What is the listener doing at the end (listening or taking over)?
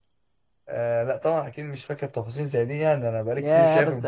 taking over